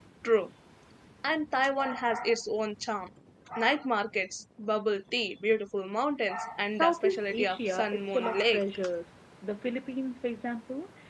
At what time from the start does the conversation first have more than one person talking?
6.7 s

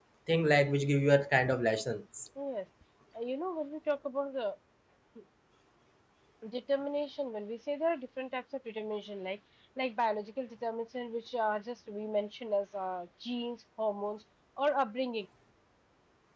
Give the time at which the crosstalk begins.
none

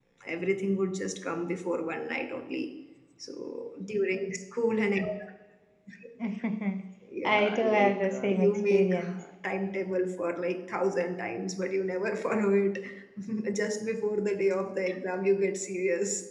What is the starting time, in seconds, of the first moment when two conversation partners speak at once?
7.2 s

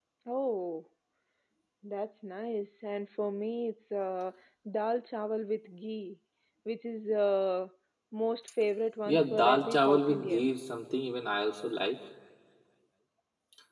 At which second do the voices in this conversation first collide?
9.1 s

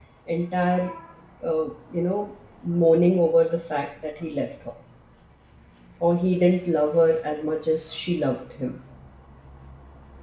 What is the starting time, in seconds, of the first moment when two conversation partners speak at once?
none

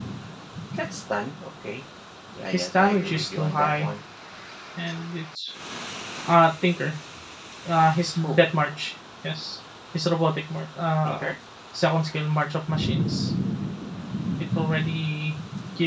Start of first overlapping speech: 2.5 s

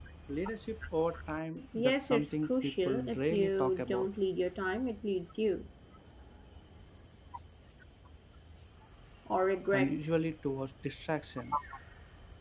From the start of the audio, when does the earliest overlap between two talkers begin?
1.8 s

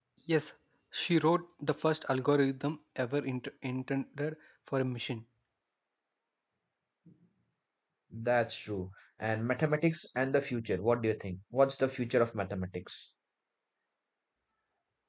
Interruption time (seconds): none

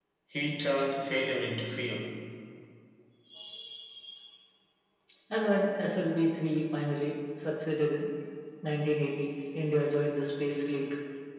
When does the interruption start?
none

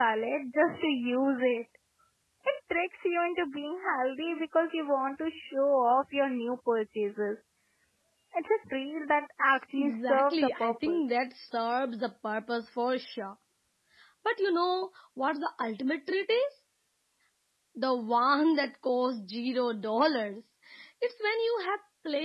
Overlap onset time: 9.8 s

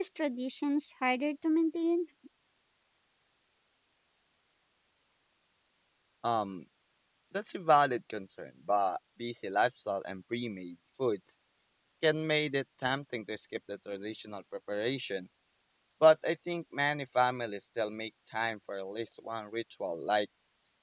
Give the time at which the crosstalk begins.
none

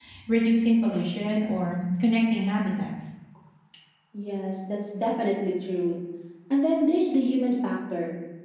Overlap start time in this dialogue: none

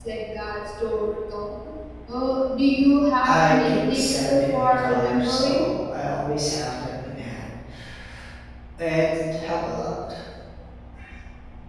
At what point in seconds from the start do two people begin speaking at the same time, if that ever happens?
3.2 s

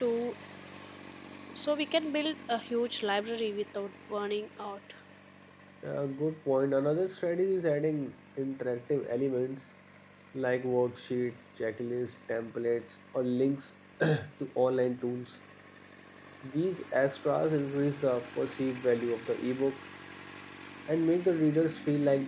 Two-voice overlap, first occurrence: none

